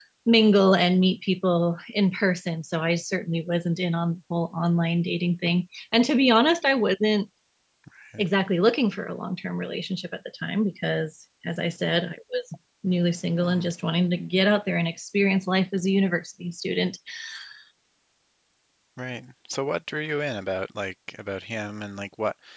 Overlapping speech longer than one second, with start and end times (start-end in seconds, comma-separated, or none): none